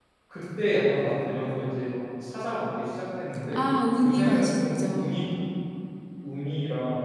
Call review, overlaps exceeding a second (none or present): present